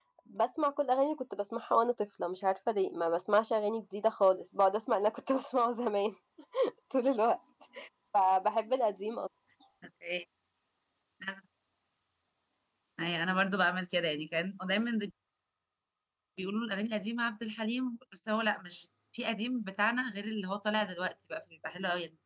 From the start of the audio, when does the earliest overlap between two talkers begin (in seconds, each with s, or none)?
none